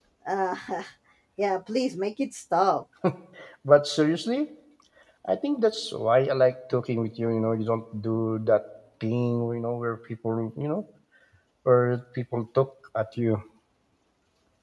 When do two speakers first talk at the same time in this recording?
none

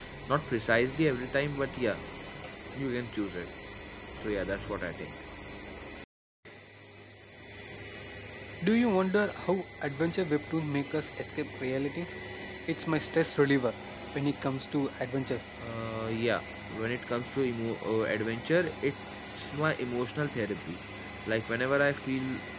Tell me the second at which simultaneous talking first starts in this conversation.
none

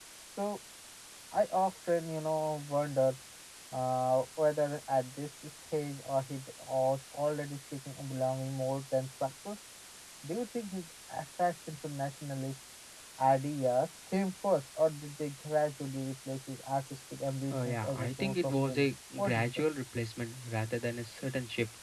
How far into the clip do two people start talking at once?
17.5 s

